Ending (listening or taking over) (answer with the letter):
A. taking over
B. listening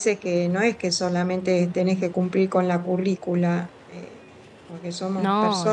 B